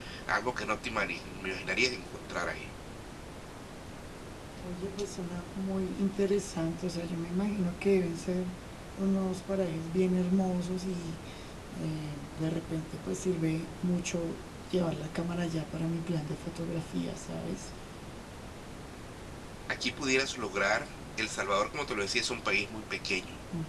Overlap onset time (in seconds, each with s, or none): none